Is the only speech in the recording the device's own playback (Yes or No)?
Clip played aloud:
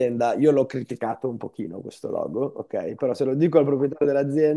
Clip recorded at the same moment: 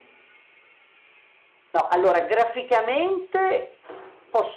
No